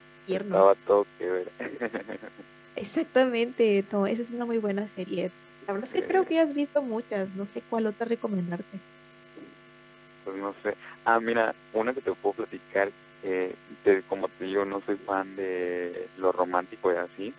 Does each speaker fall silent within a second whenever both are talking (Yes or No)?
Yes